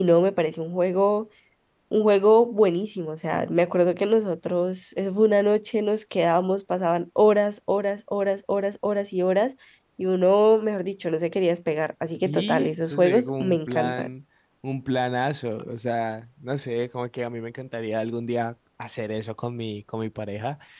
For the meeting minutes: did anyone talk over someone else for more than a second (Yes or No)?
Yes